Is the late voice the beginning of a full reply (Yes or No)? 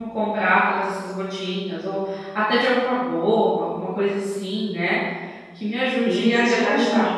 Yes